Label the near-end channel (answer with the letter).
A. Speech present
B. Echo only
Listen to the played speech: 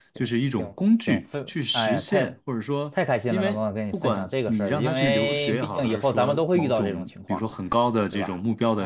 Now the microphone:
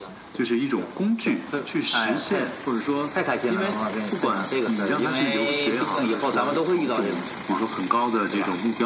B